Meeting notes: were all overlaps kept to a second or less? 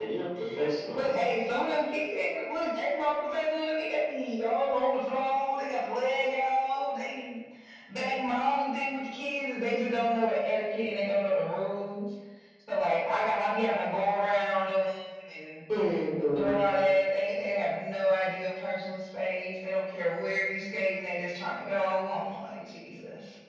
Yes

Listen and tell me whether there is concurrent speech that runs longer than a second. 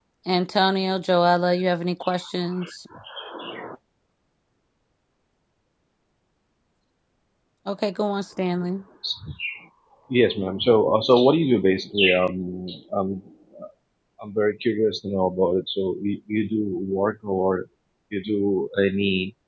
No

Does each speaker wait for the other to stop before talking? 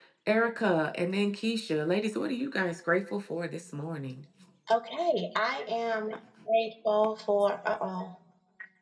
Yes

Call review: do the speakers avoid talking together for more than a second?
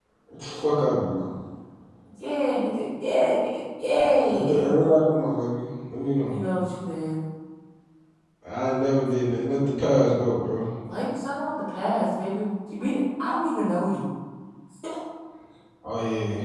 Yes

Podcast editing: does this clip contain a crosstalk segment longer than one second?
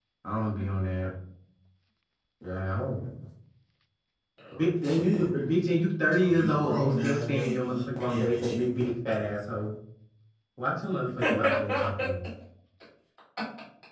Yes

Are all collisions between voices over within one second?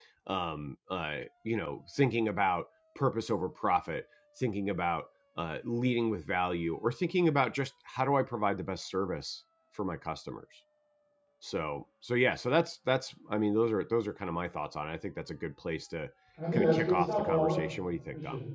No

